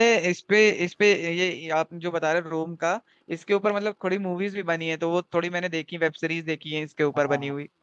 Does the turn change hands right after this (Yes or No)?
Yes